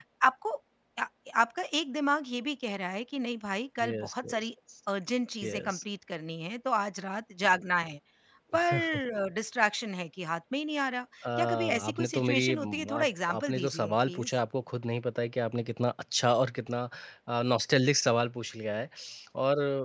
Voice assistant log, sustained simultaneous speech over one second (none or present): present